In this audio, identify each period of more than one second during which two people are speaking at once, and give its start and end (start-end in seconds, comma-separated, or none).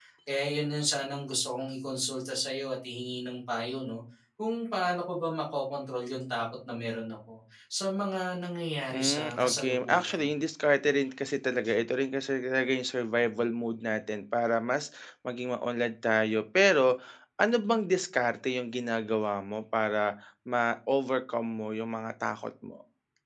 8.9-10.3